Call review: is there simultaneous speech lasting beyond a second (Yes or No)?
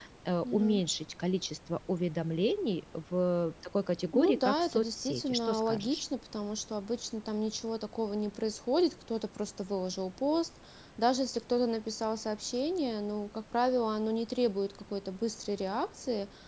Yes